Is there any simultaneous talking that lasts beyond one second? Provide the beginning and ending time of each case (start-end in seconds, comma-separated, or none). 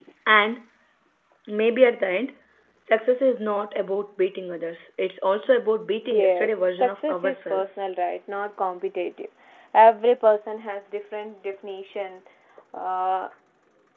6.1-7.6